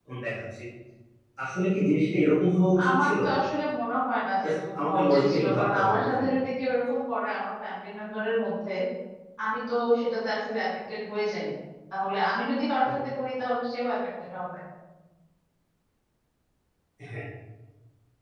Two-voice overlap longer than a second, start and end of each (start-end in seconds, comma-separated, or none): 4.4-6.3